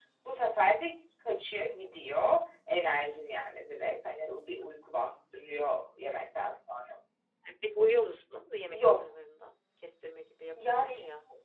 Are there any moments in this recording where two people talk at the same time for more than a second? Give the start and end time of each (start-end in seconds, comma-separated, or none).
none